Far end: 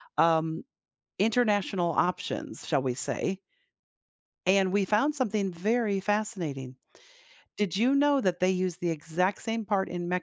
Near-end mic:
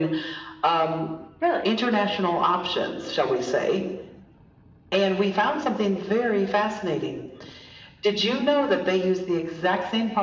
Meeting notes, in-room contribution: present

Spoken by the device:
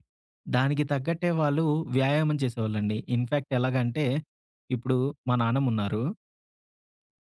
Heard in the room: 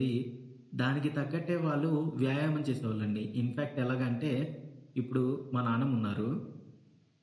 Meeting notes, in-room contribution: none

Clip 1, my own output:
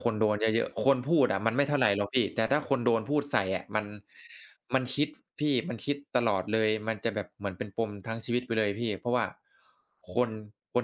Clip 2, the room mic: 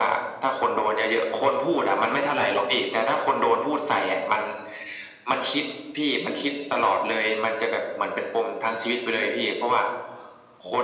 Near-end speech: none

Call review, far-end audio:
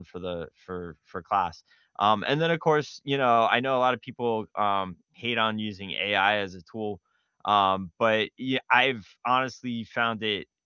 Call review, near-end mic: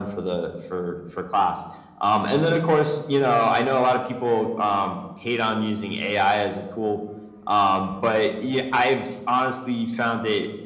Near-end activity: none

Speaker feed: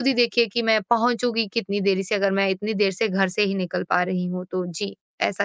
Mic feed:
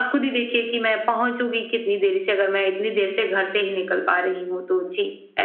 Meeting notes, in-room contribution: none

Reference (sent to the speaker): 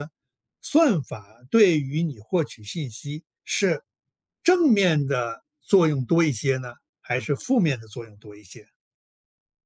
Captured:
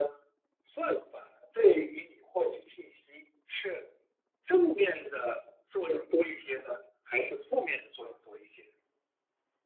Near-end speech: none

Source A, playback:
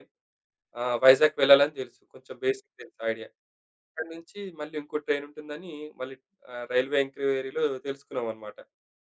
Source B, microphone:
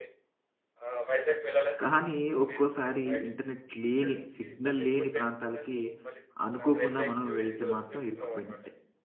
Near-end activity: present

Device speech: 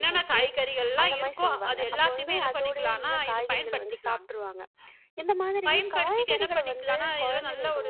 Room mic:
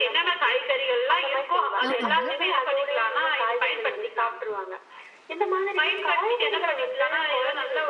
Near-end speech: present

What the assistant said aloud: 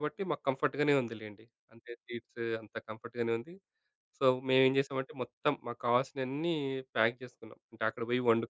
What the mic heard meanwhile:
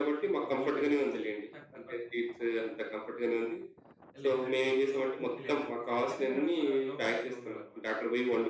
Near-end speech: present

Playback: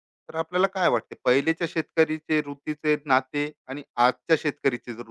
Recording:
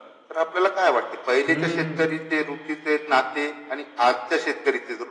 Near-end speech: present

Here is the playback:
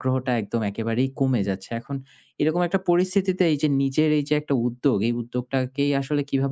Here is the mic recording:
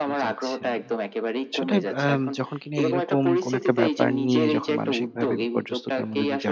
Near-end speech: present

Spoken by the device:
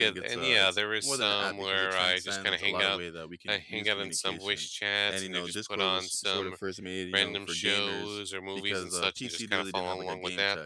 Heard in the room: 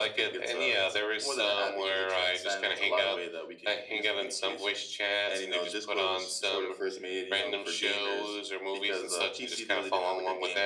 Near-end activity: none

